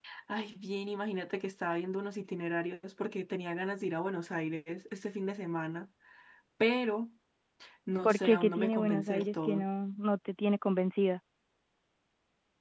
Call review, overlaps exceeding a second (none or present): present